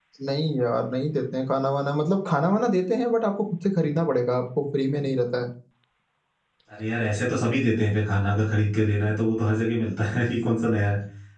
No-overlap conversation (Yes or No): Yes